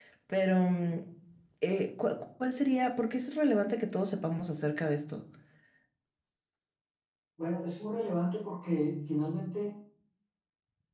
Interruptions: none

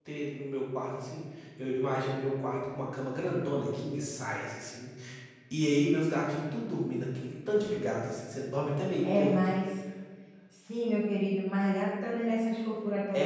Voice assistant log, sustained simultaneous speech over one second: none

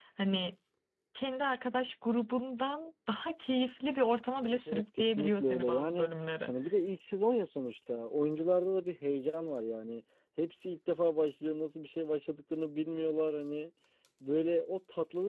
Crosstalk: present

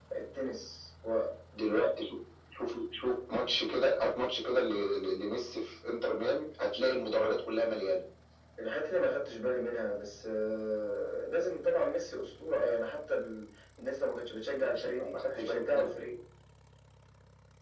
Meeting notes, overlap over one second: present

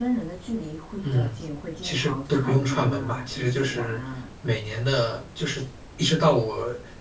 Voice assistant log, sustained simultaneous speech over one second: present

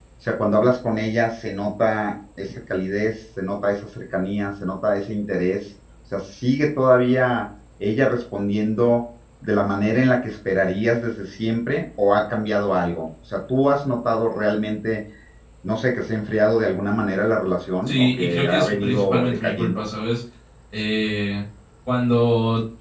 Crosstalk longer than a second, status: present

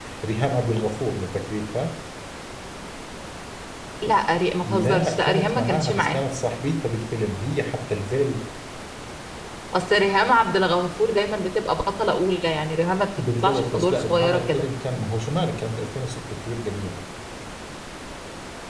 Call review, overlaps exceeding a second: present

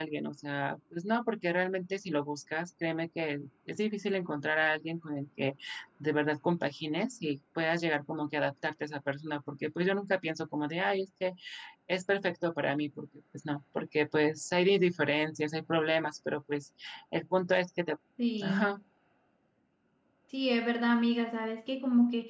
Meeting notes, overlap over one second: none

